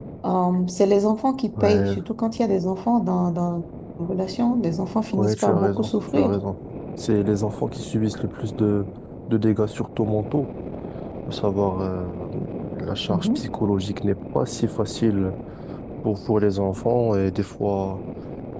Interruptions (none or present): present